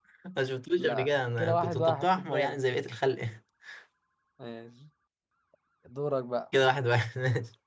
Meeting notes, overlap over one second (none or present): present